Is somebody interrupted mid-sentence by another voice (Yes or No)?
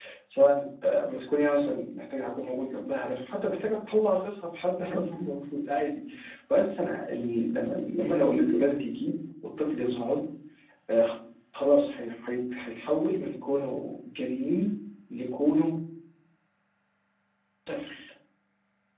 No